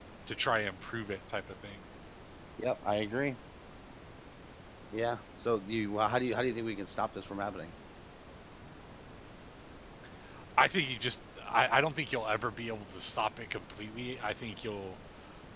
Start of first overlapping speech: none

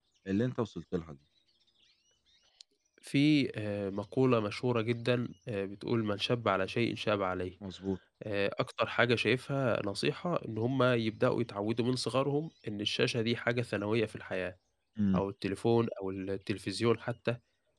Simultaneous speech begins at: none

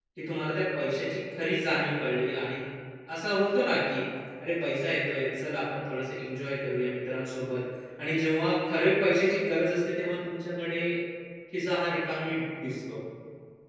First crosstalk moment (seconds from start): none

